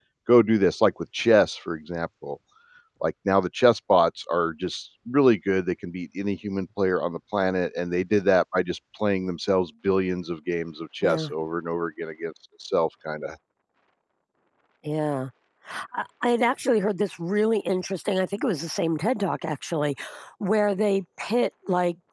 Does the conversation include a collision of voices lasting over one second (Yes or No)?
No